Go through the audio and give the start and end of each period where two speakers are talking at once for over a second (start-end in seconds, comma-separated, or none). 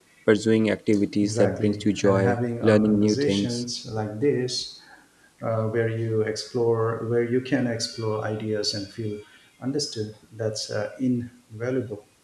1.2-3.6